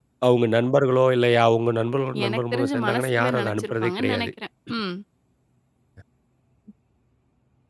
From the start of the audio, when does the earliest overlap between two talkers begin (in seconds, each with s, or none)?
2.1 s